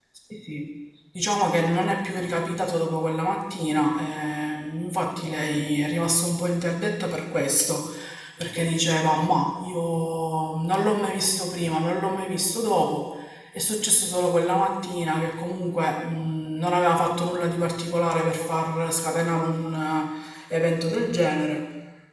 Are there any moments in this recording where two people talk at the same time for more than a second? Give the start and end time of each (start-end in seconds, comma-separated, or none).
none